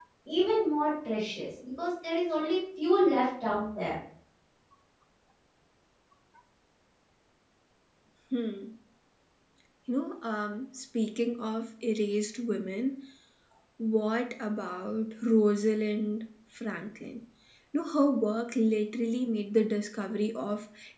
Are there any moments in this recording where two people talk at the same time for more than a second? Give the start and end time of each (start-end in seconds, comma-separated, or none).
none